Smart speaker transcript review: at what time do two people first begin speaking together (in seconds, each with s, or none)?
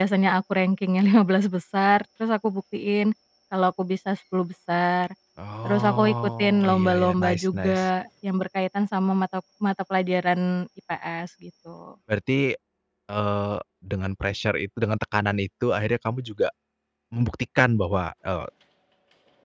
5.6 s